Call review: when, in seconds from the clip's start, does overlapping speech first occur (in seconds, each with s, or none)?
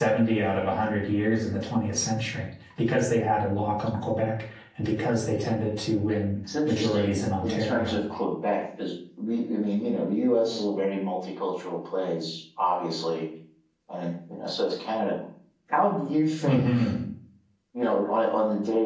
6.5 s